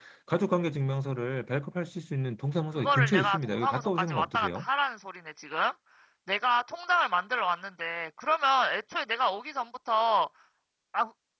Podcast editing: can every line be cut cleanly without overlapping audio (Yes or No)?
No